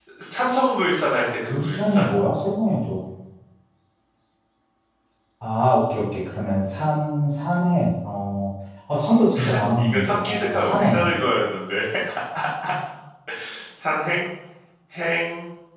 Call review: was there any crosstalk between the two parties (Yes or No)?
Yes